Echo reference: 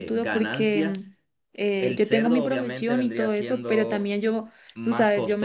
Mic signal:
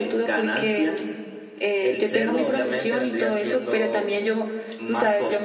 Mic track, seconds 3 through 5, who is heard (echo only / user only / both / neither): echo only